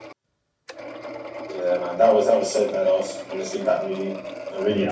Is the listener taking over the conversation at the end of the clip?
Yes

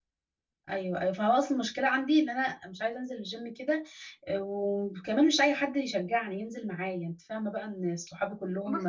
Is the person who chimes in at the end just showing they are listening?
Yes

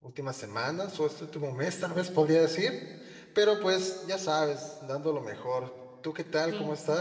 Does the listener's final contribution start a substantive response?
Yes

